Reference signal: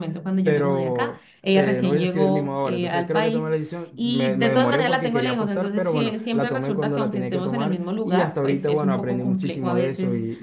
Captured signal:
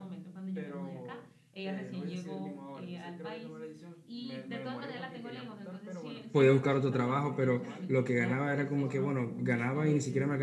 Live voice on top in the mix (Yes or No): Yes